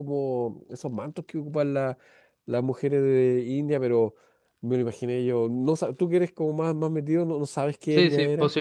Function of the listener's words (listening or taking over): taking over